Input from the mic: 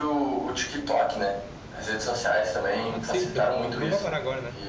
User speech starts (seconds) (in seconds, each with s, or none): 2.9 s